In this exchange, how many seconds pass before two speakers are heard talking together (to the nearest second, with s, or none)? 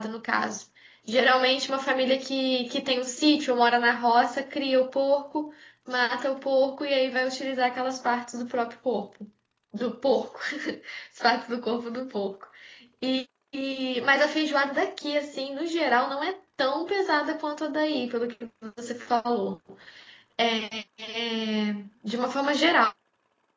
none